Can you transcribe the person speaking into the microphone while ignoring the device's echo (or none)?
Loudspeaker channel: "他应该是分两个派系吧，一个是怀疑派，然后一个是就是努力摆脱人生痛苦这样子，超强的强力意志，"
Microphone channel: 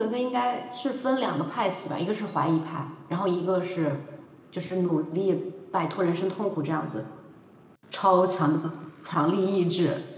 none